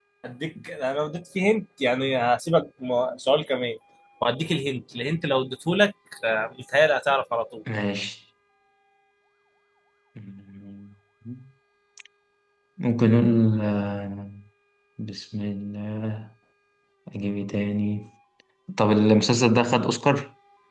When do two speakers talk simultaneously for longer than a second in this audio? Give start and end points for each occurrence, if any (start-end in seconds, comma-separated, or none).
none